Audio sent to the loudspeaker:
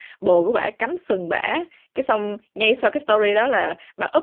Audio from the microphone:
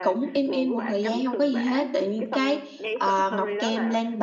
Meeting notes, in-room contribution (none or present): present